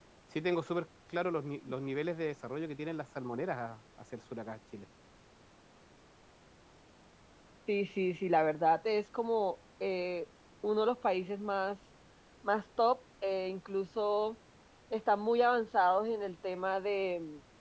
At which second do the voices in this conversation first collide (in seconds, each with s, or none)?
none